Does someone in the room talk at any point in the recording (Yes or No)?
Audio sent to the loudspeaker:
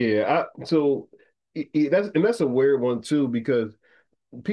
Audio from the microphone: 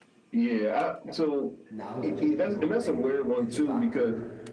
Yes